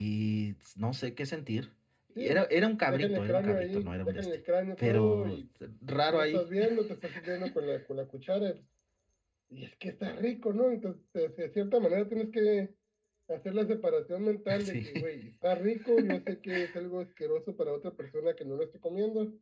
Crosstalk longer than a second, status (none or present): present